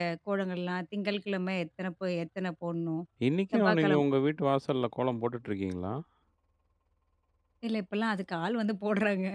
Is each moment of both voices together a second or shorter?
Yes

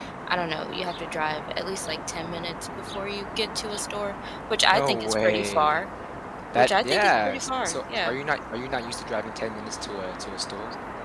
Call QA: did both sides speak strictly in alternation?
No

